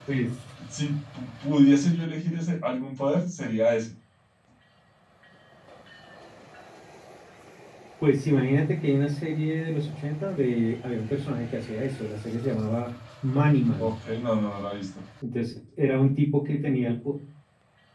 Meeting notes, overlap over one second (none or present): none